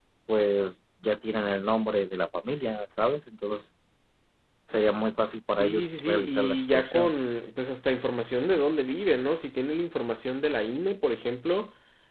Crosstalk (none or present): present